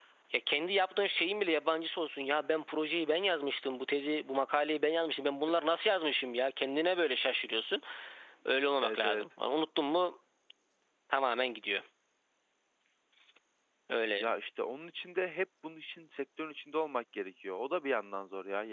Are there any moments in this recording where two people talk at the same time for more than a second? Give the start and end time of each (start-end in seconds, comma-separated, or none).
none